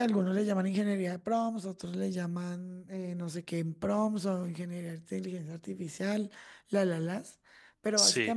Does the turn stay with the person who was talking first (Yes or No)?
Yes